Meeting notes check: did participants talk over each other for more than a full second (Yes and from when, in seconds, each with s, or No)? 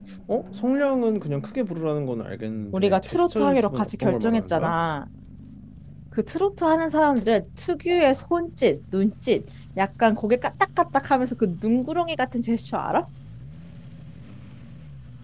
Yes, from 2.7 s